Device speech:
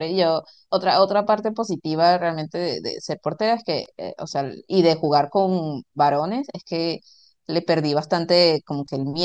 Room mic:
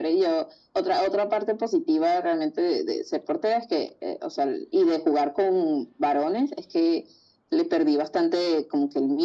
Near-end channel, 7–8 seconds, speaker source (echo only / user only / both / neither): echo only